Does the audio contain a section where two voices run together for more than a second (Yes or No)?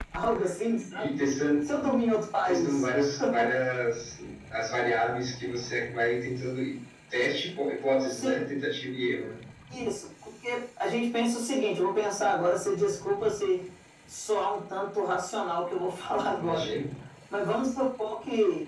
No